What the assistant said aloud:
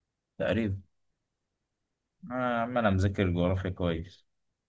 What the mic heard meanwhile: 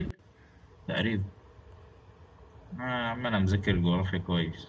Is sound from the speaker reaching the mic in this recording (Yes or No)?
Yes